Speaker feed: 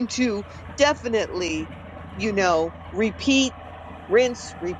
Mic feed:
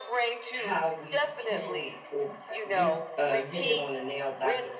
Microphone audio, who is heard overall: both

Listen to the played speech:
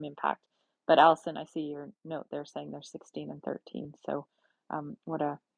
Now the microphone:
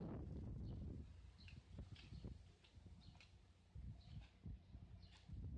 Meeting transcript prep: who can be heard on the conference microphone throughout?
neither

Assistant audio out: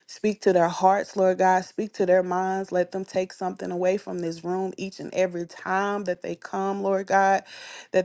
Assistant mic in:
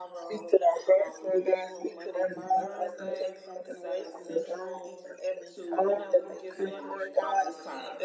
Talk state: both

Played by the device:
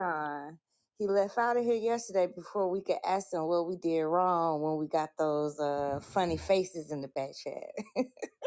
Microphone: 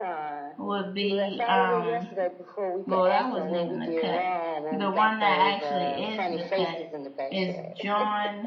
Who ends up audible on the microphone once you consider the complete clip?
both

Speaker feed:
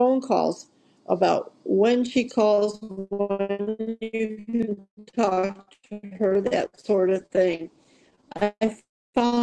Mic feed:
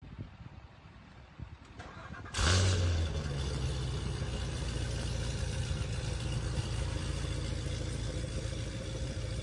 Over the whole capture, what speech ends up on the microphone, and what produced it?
neither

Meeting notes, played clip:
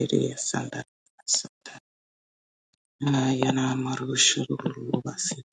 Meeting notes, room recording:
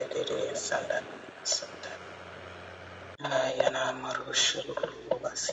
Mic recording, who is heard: echo only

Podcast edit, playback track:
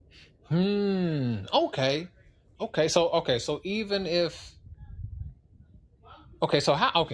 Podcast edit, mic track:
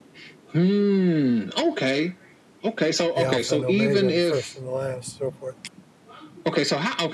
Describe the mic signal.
both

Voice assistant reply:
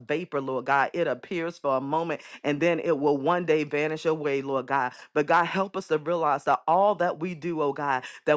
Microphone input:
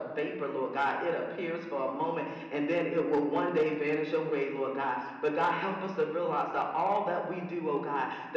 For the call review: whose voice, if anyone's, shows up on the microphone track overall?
echo only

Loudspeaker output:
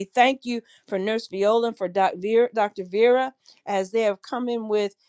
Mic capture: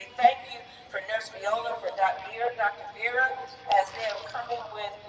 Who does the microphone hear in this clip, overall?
echo only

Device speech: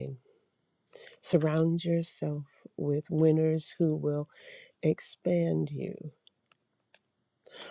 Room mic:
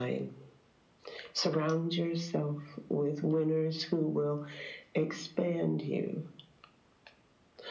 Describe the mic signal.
echo only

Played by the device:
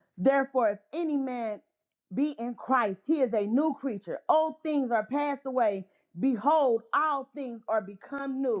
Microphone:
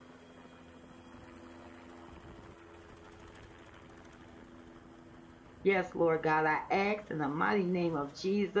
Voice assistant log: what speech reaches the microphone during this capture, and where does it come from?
user only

